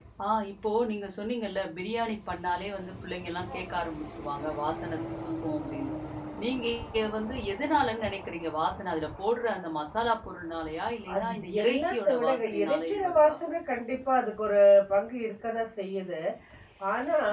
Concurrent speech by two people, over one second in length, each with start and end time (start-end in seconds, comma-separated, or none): 11.2-13.3